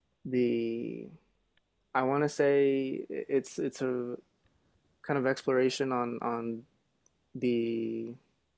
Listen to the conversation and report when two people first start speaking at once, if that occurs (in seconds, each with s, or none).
none